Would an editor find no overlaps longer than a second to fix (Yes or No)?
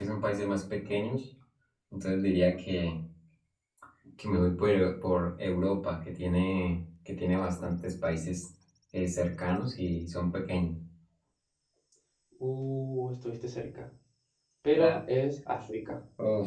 Yes